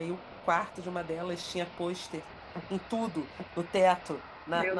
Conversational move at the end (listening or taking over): listening